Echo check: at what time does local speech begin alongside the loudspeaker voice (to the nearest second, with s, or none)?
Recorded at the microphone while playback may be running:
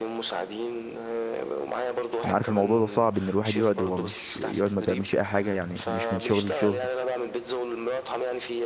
2 s